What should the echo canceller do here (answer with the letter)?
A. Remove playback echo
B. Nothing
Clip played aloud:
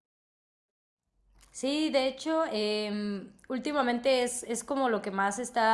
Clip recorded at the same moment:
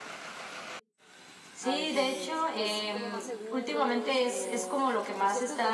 A